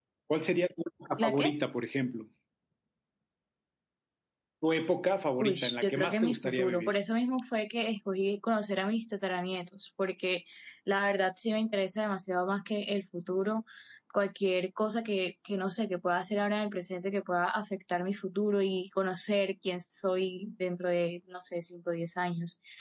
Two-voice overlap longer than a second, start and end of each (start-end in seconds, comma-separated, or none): 5.4-7.0